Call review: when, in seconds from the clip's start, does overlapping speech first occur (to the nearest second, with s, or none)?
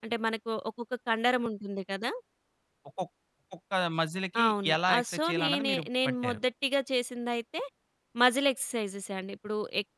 4 s